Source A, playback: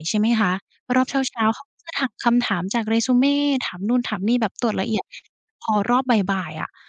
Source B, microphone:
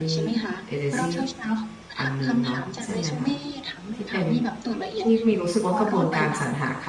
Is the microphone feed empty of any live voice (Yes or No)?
No